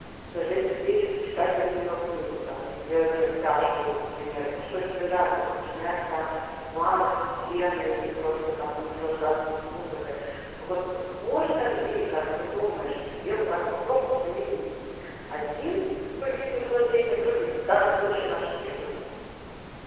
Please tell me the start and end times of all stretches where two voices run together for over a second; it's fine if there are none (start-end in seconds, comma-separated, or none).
none